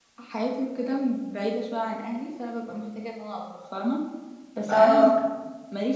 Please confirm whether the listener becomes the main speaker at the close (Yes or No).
No